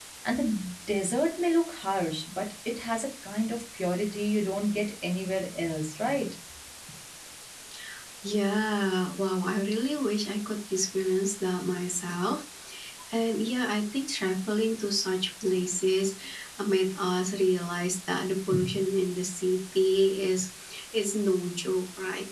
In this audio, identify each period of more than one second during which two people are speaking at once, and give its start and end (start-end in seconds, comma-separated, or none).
none